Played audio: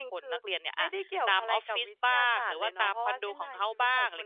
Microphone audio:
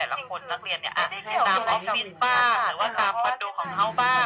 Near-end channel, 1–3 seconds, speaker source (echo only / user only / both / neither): both